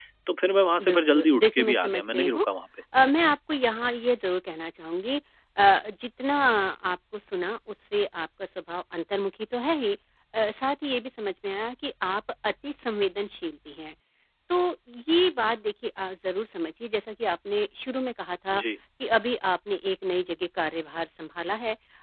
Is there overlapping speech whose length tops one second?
Yes, from 0.8 s

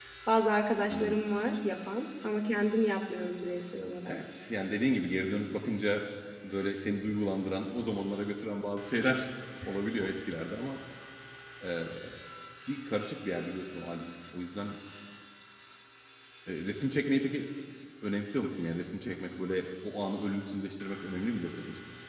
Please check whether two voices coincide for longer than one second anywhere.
No

